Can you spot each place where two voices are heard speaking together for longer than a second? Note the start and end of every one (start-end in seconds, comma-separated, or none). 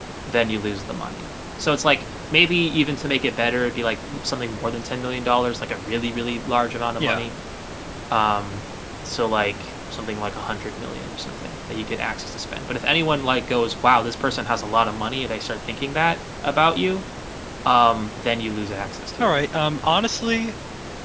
none